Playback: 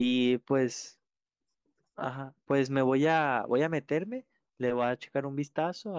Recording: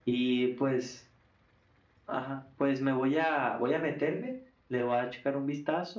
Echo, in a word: present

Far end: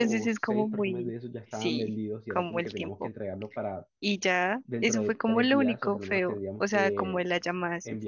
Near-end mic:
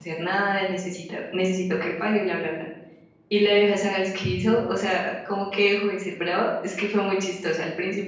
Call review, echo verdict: none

